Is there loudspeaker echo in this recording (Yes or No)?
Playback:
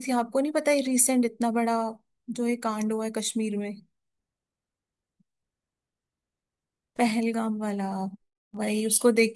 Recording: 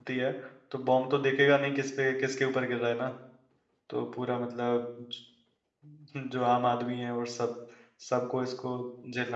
No